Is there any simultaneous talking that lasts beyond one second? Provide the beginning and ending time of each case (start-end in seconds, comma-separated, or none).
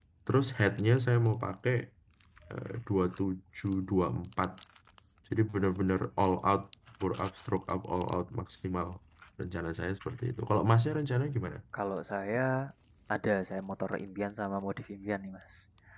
none